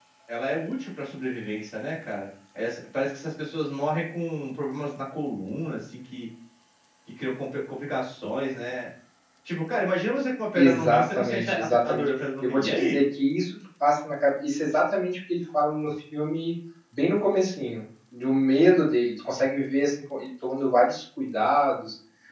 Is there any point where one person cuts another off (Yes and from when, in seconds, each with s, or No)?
Yes, from 10.6 s